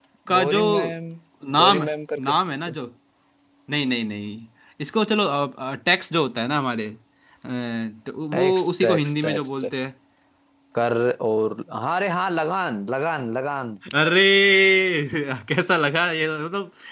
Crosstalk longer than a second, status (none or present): present